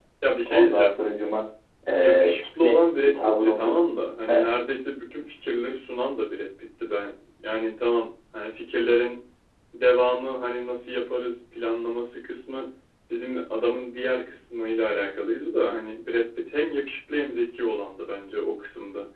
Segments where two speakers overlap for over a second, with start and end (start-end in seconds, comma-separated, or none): 2.0-3.8